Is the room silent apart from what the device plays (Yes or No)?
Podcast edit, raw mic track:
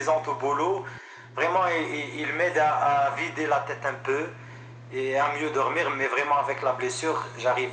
Yes